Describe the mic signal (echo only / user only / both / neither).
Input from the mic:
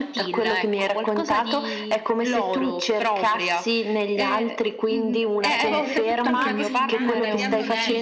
both